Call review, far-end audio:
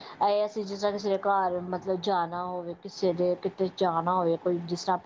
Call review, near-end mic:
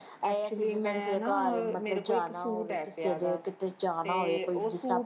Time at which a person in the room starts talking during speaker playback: 0.3 s

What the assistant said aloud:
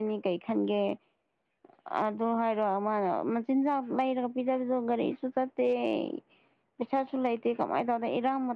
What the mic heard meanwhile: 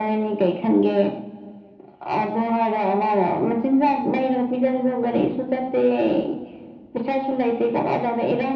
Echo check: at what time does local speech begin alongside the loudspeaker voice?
none

